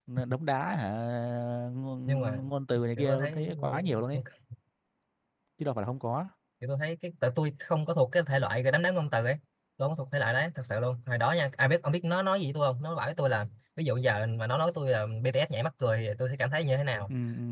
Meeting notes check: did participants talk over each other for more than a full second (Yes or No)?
Yes